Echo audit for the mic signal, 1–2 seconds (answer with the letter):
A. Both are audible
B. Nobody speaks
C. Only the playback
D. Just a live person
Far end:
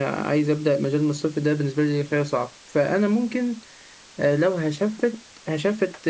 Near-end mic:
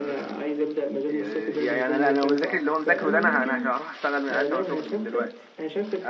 A